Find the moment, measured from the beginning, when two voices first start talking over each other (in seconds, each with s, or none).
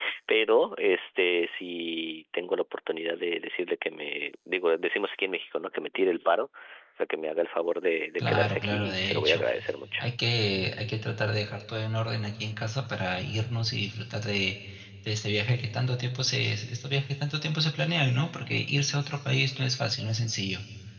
8.2 s